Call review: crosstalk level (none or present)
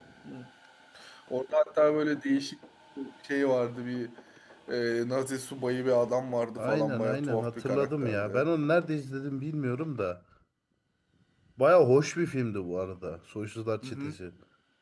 present